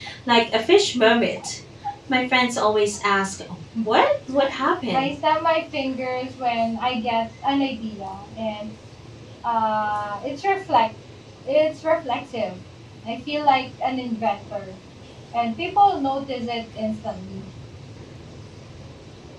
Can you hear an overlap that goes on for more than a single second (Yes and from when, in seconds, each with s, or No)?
No